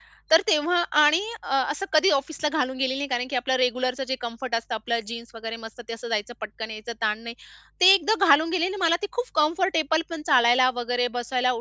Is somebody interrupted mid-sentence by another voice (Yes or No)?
No